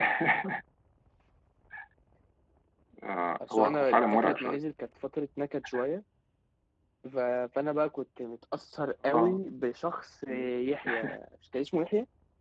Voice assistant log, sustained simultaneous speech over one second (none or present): present